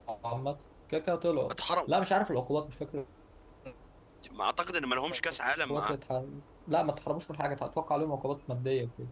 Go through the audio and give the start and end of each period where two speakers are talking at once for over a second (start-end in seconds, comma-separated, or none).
none